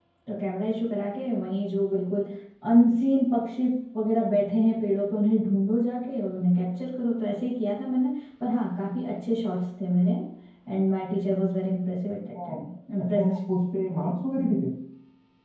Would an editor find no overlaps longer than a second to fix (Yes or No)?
Yes